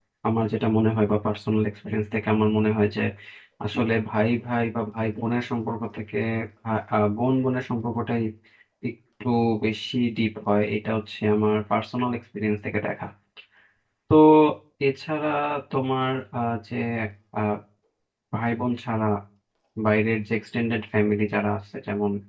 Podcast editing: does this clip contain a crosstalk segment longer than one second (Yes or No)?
No